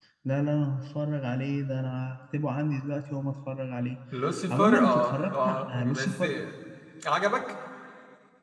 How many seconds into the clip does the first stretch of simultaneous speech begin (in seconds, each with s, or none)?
4.5 s